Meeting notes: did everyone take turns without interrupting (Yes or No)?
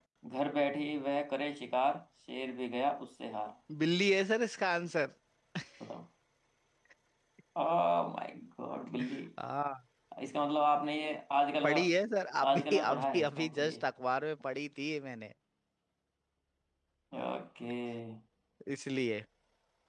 No